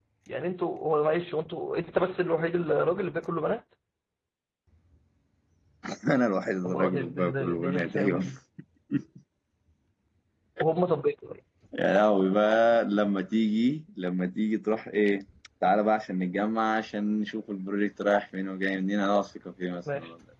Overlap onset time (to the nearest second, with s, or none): 7 s